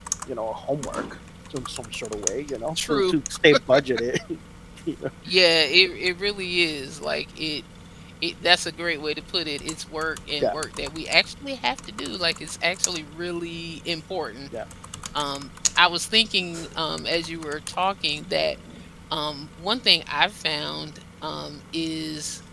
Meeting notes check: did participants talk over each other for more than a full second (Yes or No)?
No